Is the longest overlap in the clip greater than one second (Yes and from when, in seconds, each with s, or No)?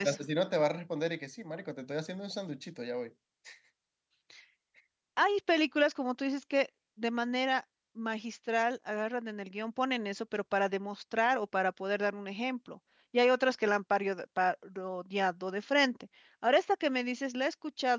No